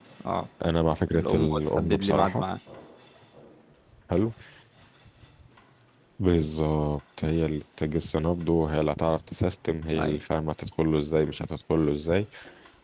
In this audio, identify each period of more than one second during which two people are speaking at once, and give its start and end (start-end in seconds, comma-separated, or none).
1.1-2.4